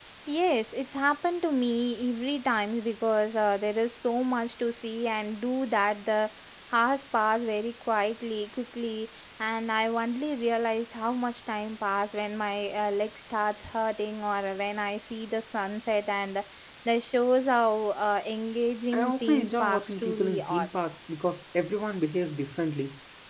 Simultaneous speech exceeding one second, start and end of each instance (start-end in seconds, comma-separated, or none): 18.9-20.7